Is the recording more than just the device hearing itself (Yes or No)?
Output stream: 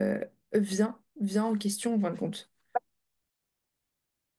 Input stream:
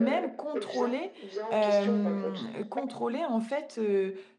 Yes